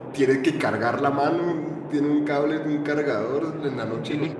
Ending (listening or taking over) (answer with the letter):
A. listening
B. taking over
B